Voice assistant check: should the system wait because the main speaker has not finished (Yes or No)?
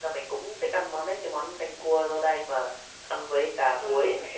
No